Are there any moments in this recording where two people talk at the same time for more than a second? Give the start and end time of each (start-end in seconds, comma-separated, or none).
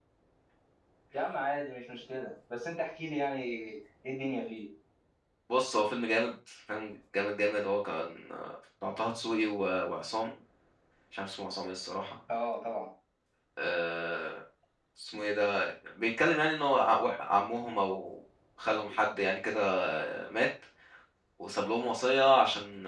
none